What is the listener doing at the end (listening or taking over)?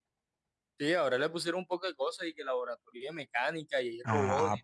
taking over